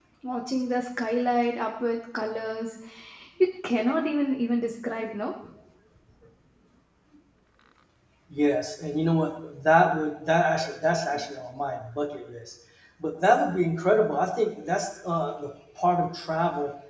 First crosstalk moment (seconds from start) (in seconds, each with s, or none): none